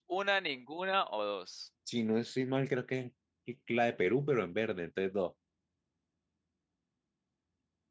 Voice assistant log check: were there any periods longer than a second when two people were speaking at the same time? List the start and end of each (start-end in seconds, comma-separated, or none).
none